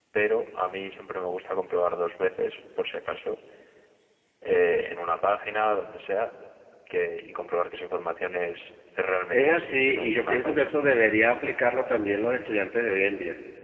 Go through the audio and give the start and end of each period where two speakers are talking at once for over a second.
9.3-10.7

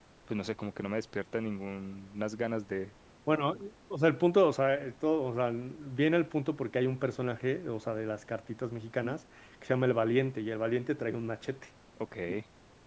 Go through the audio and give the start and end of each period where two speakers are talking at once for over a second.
none

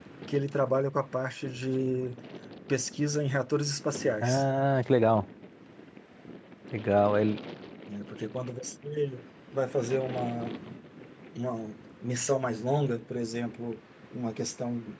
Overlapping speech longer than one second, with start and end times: none

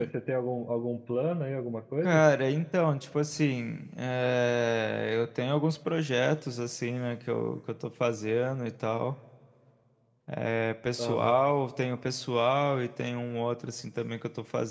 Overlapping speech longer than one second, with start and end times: none

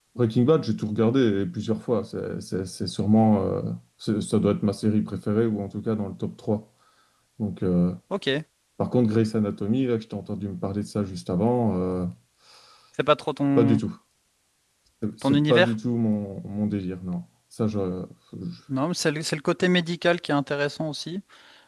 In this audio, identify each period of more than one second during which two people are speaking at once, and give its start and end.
none

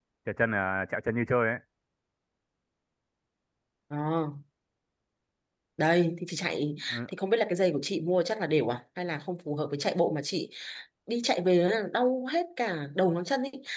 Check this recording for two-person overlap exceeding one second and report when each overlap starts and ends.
none

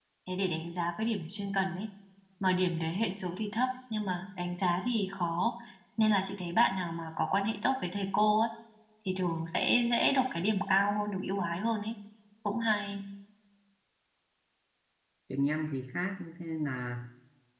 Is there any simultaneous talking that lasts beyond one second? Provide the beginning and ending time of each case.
none

